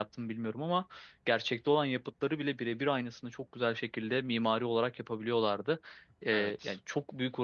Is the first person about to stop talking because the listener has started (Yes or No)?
No